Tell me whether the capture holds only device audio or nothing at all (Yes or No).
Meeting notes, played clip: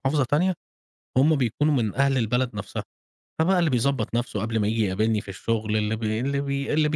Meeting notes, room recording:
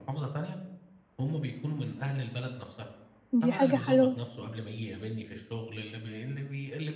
No